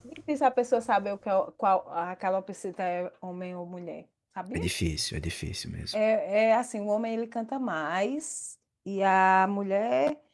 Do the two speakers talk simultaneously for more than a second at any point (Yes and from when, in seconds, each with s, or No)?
No